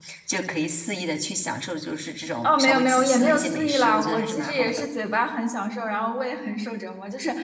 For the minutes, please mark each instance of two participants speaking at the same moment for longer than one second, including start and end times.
2.4-4.8

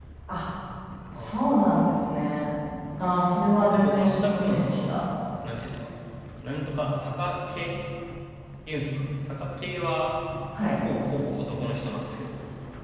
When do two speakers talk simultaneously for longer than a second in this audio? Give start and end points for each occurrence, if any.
3.6-5.0

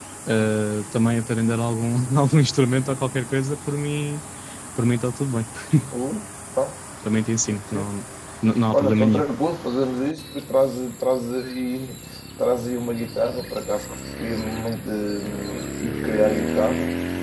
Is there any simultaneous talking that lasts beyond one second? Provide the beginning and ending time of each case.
none

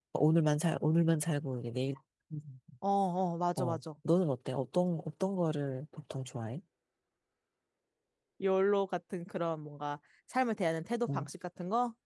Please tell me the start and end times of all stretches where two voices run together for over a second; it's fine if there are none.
none

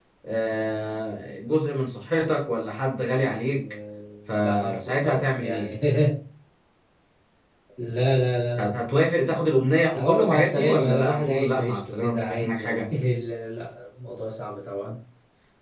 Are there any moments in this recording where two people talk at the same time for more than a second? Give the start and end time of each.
4.3-5.7, 10.0-12.9

